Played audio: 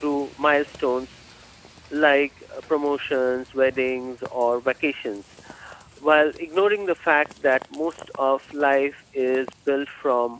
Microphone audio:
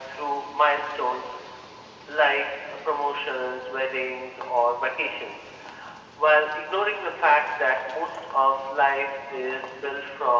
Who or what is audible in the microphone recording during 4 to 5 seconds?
echo only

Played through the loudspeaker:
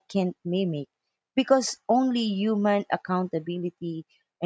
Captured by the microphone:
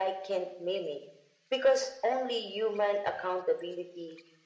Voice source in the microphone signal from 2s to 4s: echo only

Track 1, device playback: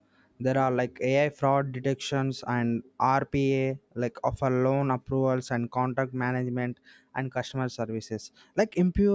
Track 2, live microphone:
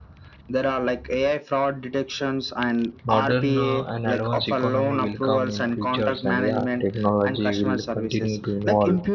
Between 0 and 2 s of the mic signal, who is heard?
echo only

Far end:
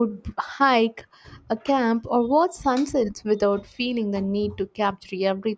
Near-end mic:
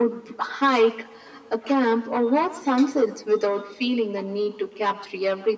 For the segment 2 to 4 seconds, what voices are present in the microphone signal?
echo only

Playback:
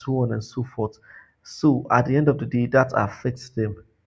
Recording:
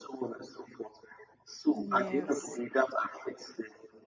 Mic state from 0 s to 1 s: echo only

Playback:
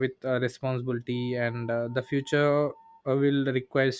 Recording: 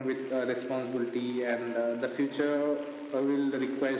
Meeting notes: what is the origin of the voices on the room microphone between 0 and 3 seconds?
echo only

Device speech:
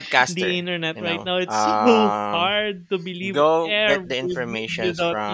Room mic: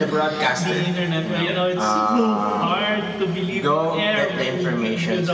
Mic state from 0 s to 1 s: both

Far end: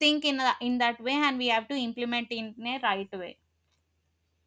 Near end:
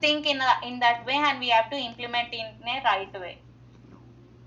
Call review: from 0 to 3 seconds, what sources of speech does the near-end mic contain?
echo only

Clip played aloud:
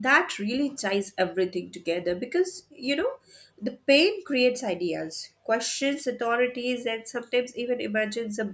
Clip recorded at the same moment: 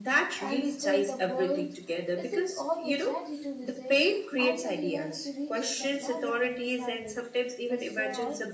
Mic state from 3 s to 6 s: both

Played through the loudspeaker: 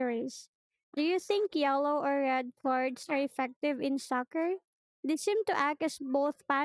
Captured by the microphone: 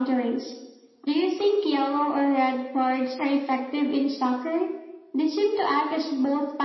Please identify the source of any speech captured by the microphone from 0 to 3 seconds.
echo only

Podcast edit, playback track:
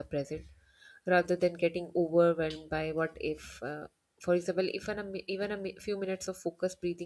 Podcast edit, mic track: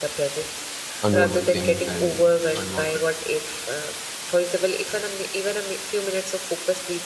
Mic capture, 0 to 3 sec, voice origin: both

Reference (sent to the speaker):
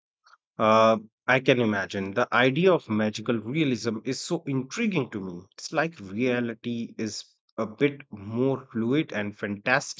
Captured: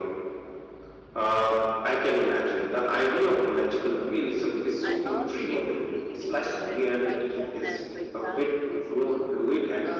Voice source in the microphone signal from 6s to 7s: both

